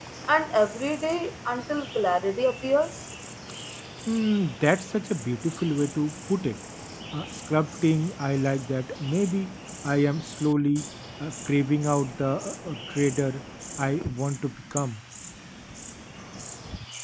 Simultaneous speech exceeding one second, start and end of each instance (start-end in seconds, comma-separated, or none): none